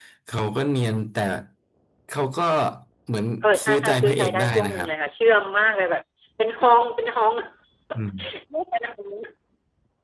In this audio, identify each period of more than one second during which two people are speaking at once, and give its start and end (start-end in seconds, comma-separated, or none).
3.6-4.9